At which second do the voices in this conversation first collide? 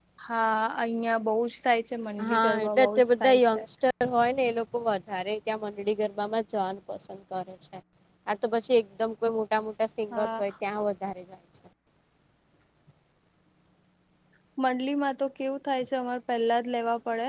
2 s

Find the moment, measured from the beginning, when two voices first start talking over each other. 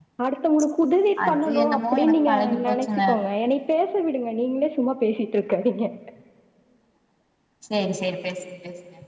1 s

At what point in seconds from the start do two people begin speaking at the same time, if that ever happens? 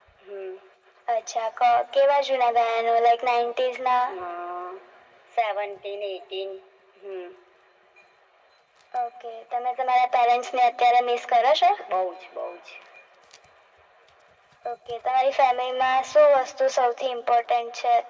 none

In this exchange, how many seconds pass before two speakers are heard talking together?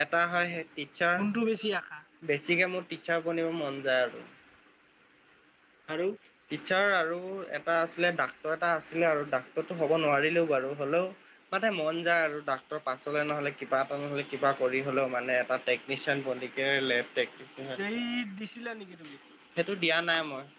none

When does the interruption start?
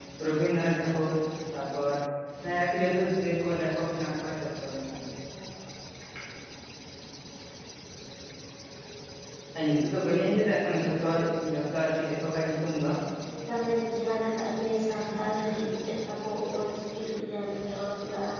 none

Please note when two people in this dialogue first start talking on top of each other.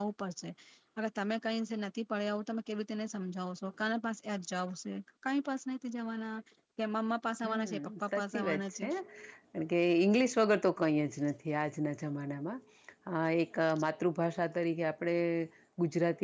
7 s

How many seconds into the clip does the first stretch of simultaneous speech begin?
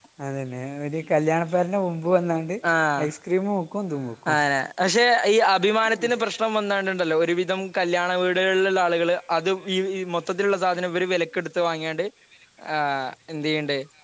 none

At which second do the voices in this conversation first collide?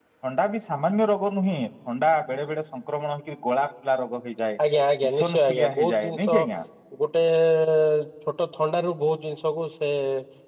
5 s

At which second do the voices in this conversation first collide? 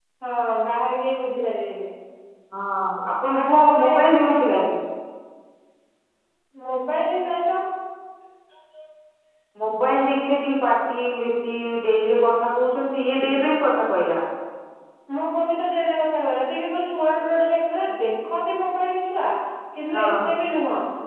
3 s

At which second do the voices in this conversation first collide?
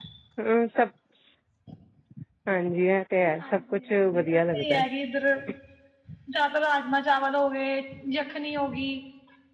3 s

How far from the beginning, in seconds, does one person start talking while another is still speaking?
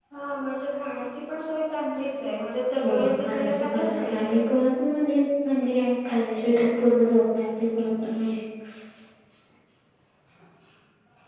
3 s

